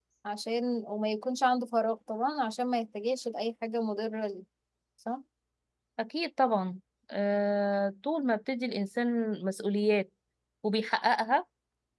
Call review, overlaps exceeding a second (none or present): none